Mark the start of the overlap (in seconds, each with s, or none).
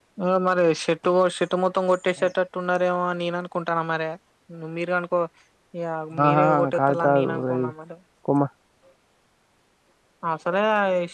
6.3 s